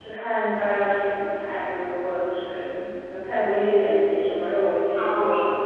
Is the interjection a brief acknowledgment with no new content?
No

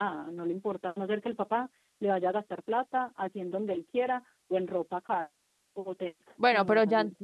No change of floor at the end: No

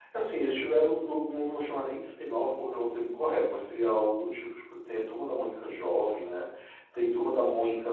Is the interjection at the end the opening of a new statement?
No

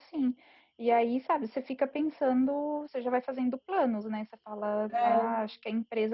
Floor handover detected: No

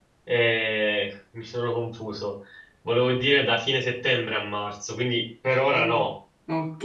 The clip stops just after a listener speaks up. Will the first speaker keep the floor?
No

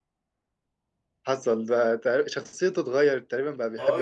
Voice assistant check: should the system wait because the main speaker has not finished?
No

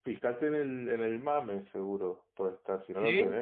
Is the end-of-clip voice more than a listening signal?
No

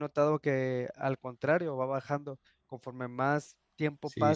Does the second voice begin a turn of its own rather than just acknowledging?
Yes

